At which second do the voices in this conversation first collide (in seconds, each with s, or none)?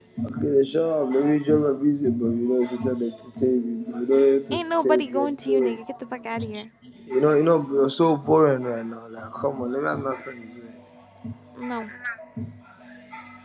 4.5 s